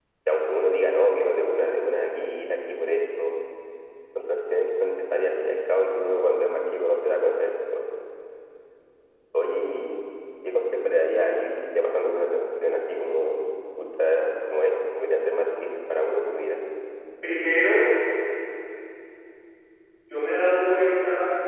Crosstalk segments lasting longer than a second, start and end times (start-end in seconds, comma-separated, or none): none